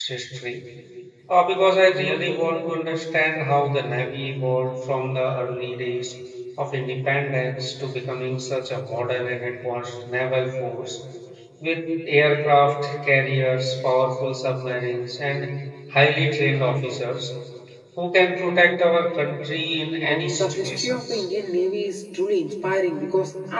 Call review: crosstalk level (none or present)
present